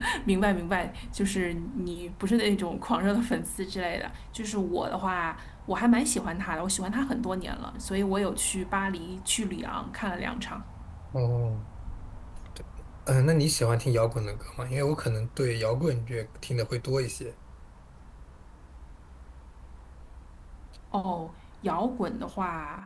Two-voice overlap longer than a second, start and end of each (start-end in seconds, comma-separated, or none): none